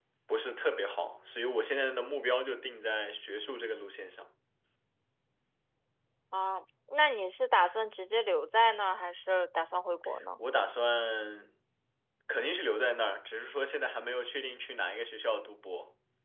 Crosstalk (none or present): none